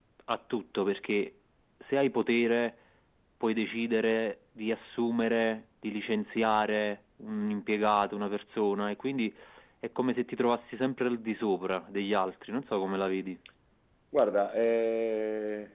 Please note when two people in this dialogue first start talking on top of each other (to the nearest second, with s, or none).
none